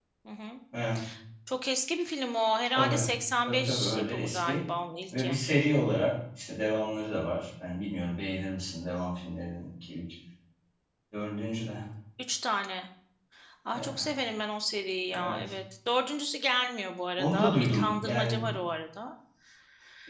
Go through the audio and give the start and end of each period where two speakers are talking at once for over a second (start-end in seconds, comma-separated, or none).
3.5-4.7, 17.2-18.5